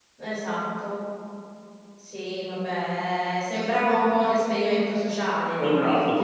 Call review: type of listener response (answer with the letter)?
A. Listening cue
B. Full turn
B